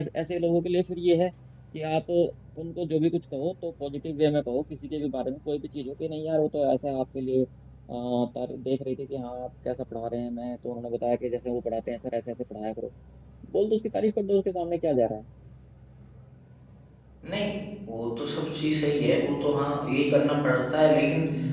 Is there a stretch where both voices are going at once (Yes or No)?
No